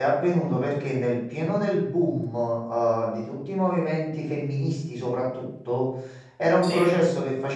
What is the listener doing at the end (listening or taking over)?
listening